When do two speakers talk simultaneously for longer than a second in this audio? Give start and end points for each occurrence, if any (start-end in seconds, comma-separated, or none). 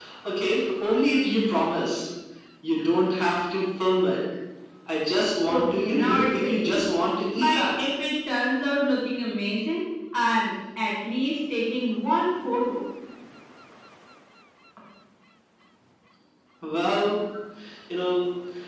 5.4-6.8